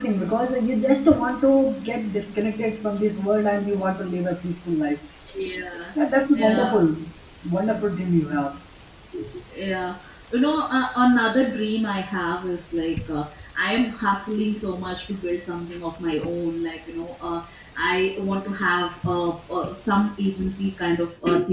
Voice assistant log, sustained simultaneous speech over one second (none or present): none